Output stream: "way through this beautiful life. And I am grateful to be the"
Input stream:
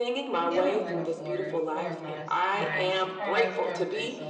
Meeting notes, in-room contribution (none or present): present